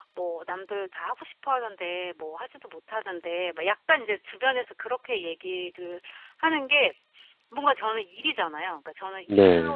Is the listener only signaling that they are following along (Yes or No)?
Yes